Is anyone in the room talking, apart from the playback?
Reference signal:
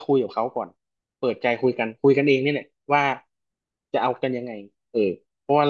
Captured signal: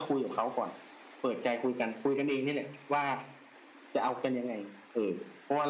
No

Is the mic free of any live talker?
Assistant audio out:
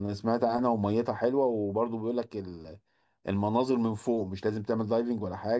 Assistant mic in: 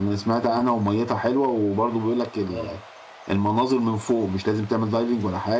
No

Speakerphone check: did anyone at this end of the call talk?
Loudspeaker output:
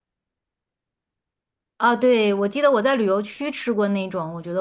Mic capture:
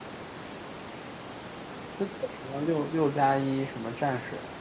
Yes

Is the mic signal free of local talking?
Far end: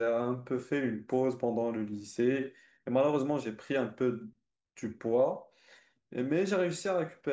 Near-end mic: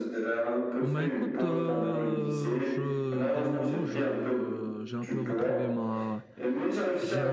No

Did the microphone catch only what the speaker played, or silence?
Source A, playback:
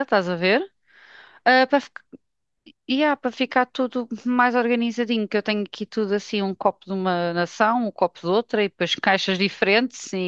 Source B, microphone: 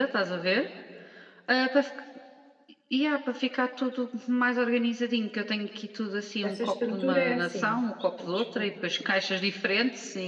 No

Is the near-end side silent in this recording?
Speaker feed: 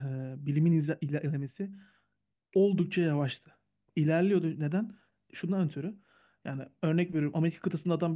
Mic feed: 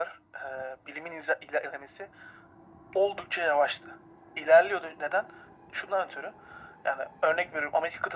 Yes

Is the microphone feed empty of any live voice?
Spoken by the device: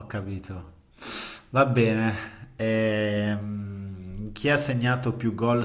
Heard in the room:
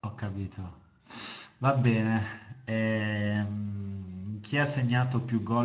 Yes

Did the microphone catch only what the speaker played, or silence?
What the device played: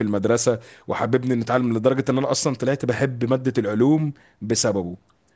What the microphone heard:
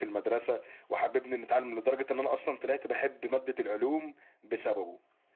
Yes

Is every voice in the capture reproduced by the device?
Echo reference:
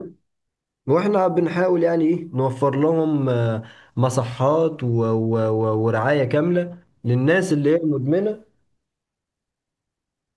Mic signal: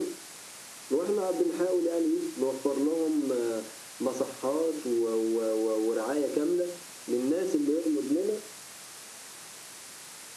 Yes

